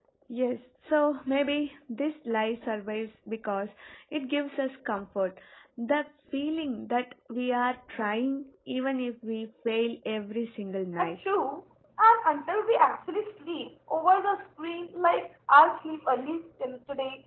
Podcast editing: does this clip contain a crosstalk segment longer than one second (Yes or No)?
No